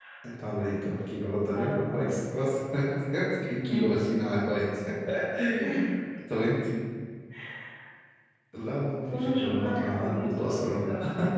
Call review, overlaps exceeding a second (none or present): present